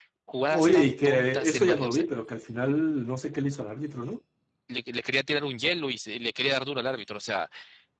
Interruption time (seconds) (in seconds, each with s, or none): 0.5 s